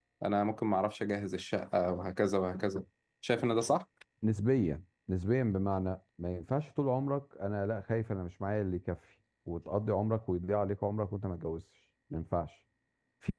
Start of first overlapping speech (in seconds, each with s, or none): none